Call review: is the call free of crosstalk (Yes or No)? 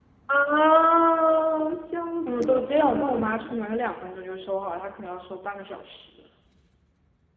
No